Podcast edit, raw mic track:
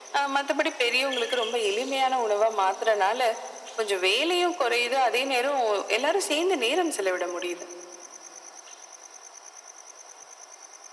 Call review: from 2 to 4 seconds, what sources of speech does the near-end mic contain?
echo only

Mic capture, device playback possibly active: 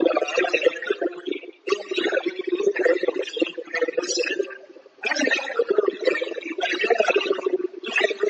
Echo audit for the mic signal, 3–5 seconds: echo only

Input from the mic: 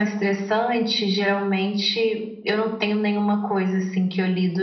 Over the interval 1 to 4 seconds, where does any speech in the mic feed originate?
echo only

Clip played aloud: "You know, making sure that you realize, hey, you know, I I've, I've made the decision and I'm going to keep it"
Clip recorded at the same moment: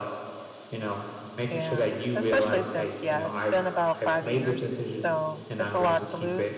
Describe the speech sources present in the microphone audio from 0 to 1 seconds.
echo only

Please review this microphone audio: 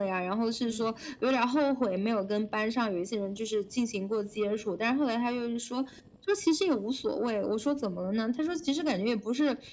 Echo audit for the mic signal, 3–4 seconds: echo only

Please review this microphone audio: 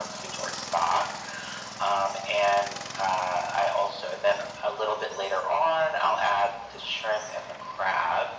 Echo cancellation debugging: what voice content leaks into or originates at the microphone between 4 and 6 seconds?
echo only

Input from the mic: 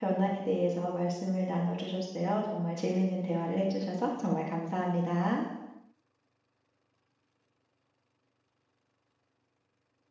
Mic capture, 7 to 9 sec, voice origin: neither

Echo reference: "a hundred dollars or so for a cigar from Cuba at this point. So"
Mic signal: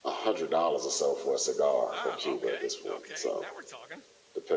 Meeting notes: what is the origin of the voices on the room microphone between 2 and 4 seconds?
both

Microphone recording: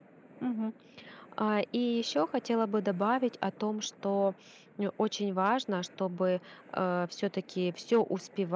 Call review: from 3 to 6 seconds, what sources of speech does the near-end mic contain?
user only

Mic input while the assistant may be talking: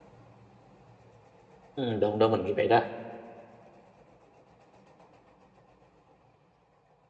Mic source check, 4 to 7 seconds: neither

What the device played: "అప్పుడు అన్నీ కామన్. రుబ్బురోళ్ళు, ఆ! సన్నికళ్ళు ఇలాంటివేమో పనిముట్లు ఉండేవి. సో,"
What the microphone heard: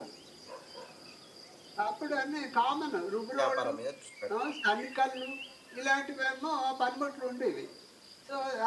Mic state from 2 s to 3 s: echo only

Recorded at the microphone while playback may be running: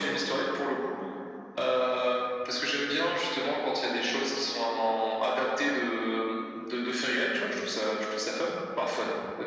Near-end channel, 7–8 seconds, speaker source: echo only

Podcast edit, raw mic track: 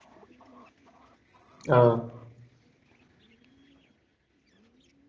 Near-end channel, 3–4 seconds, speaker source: neither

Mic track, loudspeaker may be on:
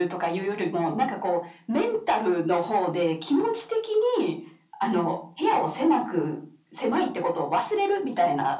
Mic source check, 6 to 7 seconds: echo only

